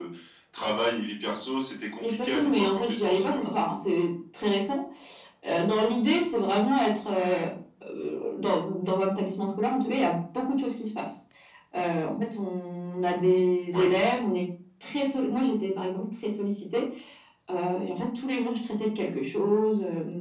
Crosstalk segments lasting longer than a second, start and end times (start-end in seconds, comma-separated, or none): 2.1-3.5